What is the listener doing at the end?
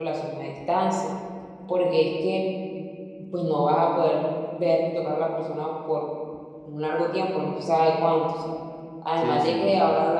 listening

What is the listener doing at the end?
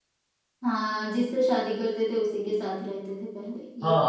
taking over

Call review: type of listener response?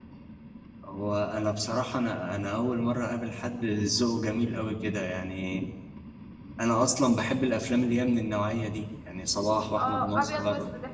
taking over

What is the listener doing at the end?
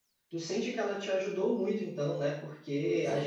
taking over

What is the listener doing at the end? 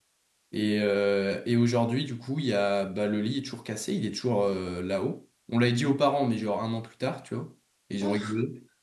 listening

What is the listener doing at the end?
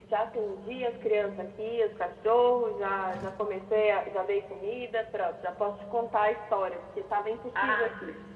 taking over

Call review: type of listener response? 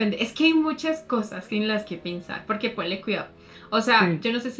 listening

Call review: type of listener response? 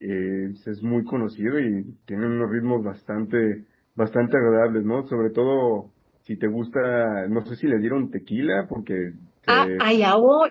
taking over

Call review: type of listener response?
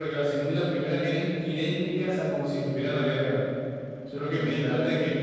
listening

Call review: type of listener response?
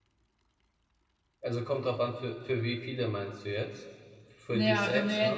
taking over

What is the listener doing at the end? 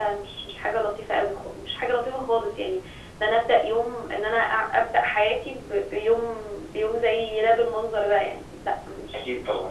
taking over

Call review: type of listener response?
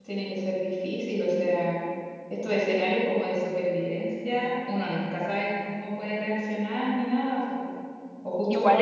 listening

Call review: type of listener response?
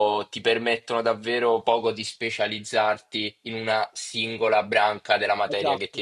taking over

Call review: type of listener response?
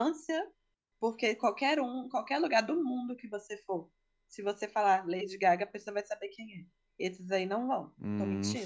taking over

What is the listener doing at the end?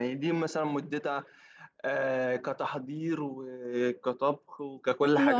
taking over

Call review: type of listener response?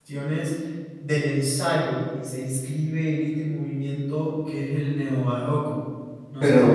taking over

